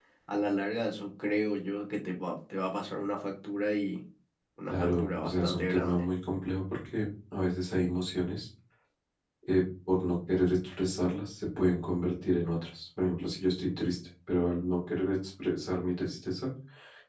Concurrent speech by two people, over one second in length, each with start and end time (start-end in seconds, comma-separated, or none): 4.7-6.1